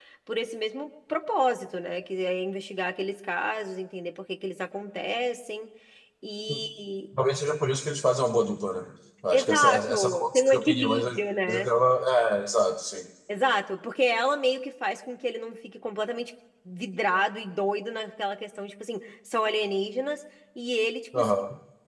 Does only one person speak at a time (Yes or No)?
No